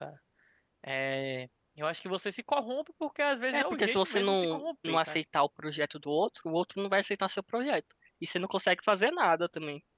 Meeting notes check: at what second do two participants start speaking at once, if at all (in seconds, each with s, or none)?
3.5 s